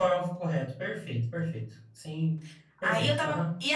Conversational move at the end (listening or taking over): taking over